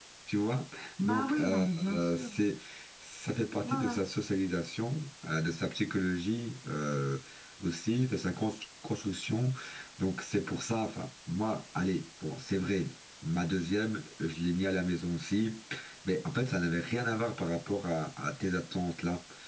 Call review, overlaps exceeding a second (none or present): present